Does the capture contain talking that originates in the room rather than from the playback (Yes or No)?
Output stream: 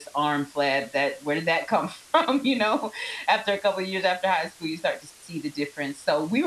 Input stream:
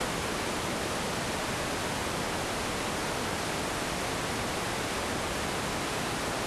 No